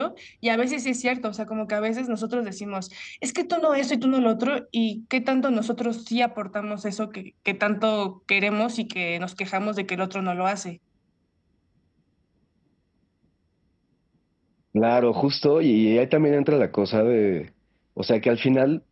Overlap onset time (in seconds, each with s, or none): none